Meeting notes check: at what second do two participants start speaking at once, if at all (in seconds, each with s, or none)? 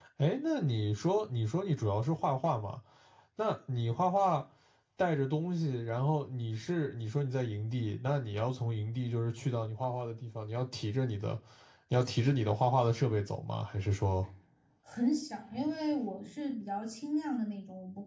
none